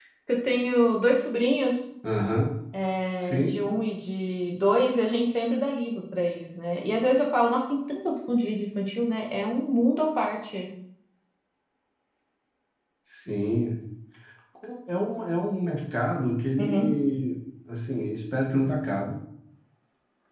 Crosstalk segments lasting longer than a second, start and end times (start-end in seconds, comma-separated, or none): none